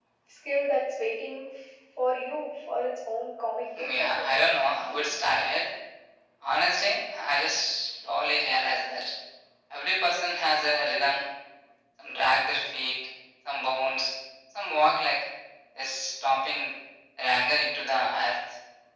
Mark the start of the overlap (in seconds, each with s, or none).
3.8 s